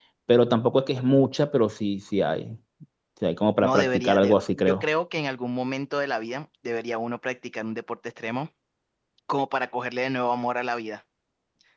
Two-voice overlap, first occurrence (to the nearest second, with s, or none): 4 s